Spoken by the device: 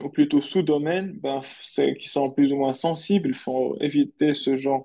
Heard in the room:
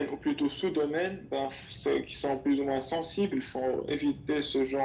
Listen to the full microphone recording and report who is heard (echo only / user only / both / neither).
echo only